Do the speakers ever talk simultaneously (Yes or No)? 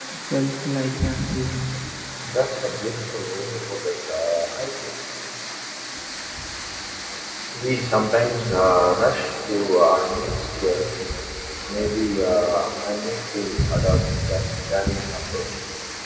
No